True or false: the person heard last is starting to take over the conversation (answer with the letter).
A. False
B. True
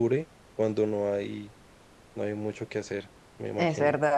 B